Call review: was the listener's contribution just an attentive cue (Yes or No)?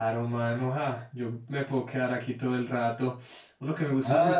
No